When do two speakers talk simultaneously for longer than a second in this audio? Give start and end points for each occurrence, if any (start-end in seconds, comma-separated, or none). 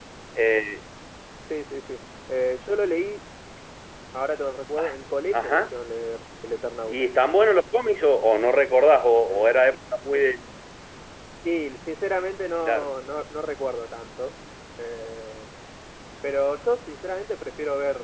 none